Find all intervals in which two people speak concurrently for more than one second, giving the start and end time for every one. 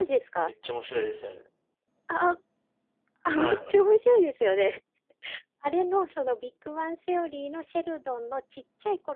none

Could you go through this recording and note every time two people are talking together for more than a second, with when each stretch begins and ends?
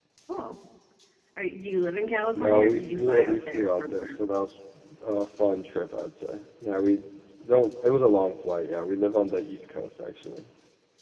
2.3-4.2

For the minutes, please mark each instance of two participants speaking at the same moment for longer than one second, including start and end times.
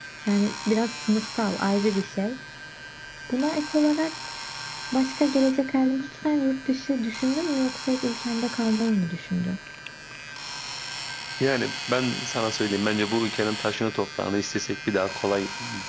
none

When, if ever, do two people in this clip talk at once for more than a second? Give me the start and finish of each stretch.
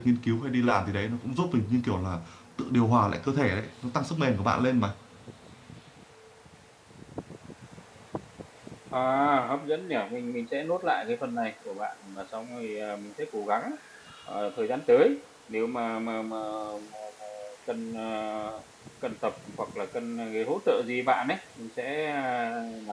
none

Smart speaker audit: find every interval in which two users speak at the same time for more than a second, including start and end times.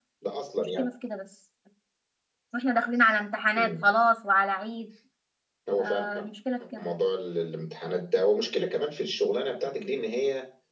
none

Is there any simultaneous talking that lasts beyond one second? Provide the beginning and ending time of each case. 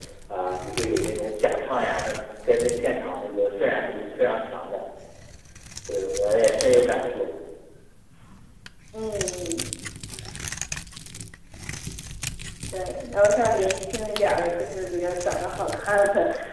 none

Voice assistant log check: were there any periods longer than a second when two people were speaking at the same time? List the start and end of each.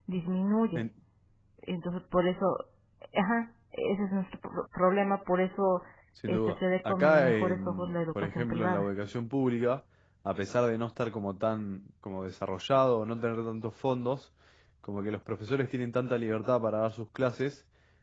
6.3-8.9

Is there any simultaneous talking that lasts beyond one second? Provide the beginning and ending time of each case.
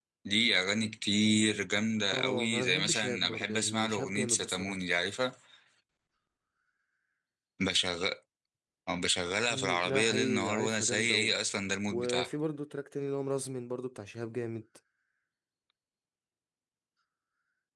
2.1-4.8, 9.5-11.3

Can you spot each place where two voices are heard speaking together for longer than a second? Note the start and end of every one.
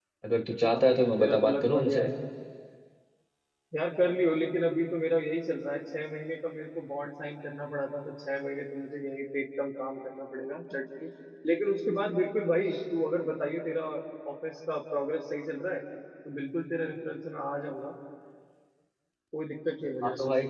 0.7-2.0

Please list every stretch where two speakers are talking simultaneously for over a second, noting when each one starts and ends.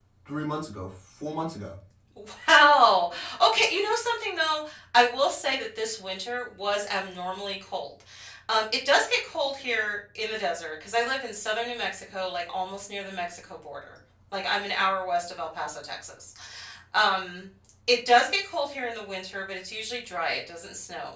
none

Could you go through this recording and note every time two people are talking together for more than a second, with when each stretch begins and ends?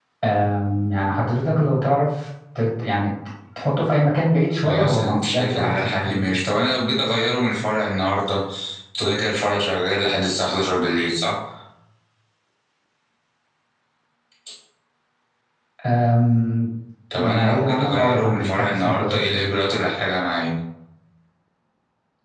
4.6-6.3, 17.1-19.5

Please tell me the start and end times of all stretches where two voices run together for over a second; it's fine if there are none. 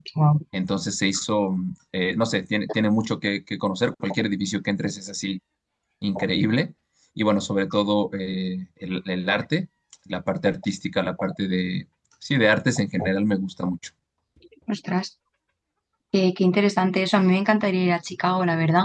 none

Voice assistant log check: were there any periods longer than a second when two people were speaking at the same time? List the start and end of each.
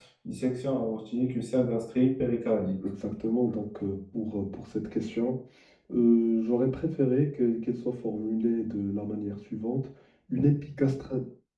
none

